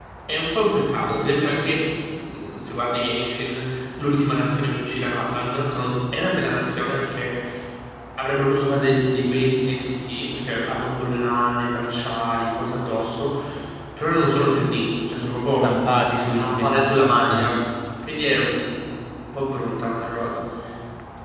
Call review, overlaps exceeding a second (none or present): present